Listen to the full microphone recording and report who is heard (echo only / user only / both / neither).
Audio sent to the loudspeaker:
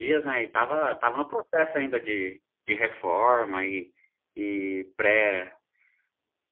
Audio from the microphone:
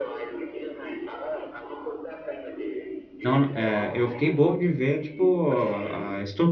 both